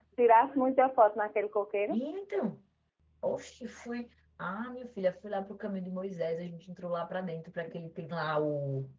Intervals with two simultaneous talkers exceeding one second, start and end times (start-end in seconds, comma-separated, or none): none